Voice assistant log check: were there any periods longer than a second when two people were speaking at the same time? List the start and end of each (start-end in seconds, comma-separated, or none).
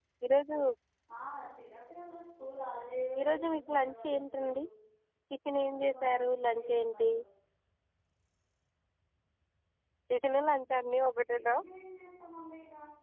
3.2-4.5, 5.6-7.1